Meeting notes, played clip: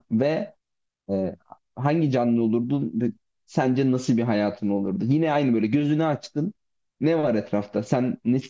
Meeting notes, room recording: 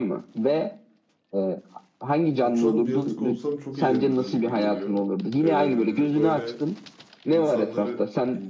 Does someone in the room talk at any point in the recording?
Yes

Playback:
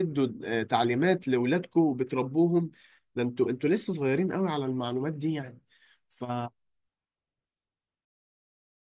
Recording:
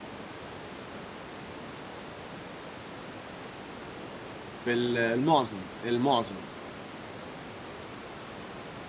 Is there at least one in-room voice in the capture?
Yes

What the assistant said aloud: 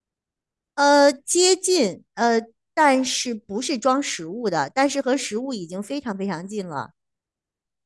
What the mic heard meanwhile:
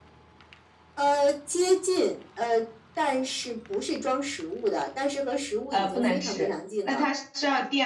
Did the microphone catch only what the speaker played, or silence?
No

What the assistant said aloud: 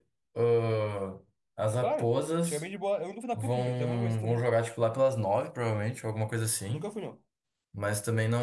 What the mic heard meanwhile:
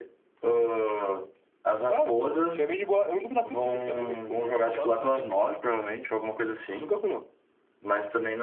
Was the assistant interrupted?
Yes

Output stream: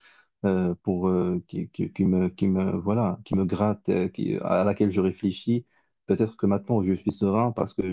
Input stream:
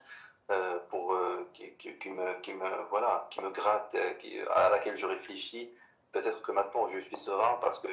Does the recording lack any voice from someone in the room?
Yes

